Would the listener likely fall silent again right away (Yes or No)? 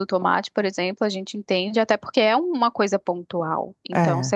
Yes